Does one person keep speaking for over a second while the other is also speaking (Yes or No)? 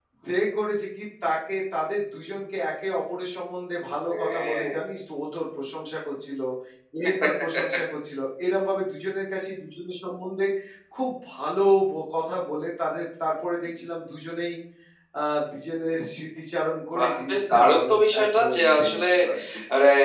Yes